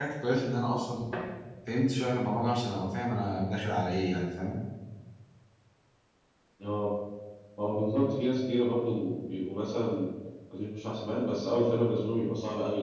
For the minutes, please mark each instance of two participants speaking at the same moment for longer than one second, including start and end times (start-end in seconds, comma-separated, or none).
none